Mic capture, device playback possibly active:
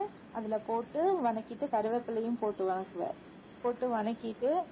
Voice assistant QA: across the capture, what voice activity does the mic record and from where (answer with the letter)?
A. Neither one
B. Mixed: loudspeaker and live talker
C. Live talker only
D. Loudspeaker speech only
D